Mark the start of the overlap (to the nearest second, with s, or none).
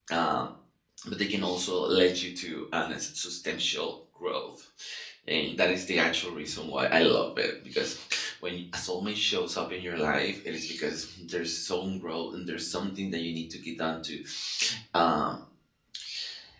none